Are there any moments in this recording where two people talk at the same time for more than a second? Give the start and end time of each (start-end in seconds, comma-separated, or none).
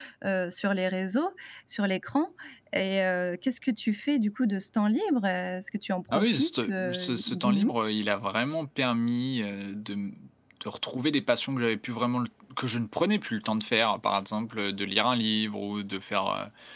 6.1-7.7